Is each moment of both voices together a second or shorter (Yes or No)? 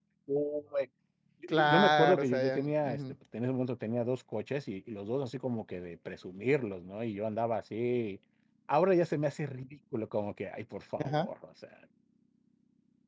No